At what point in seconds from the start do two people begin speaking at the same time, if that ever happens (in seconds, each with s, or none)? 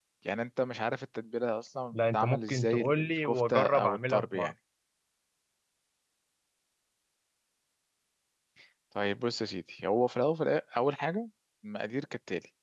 1.9 s